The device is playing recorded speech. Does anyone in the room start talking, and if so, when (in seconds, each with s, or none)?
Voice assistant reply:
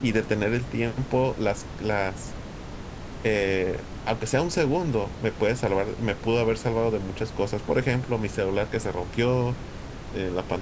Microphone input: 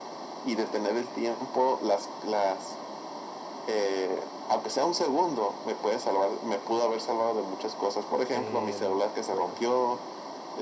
8.3 s